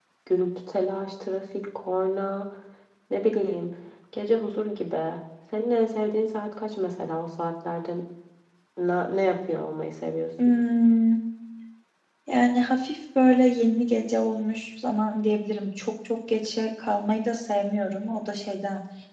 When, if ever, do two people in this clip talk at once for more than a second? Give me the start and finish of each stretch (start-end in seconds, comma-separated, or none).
none